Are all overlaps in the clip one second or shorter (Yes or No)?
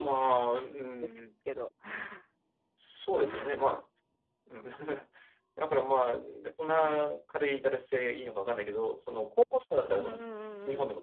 Yes